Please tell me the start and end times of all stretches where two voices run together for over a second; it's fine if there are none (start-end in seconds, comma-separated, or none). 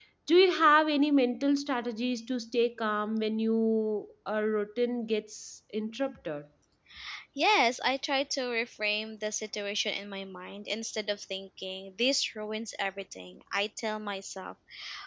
none